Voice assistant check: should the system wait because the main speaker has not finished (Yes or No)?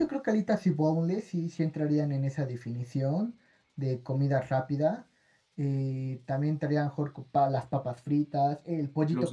Yes